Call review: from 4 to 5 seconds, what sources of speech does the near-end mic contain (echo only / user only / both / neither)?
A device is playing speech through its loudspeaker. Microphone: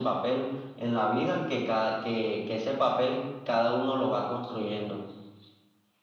echo only